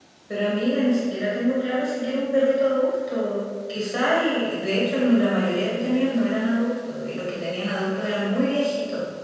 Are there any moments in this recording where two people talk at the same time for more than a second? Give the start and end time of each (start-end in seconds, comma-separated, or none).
none